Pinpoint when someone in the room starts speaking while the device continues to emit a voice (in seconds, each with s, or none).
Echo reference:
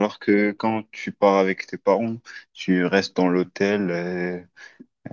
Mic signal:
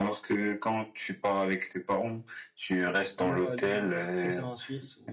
3.2 s